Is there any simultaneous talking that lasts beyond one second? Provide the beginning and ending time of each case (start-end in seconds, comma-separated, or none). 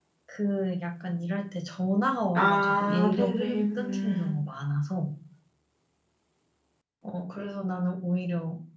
2.4-4.3